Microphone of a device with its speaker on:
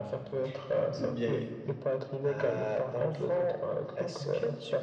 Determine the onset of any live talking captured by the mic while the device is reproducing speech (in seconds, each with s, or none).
1.0 s